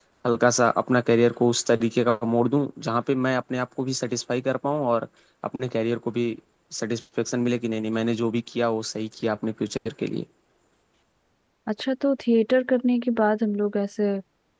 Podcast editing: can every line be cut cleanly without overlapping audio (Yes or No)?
Yes